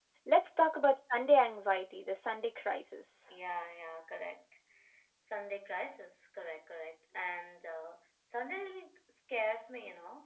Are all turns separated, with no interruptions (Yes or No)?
Yes